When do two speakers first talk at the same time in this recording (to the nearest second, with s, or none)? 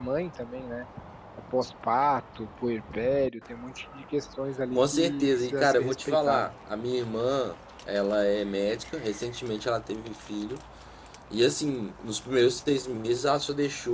5 s